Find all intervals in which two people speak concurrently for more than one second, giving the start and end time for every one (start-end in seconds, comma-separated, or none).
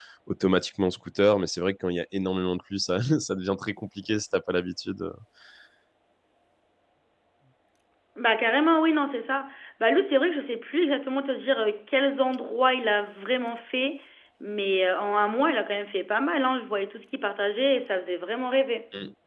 none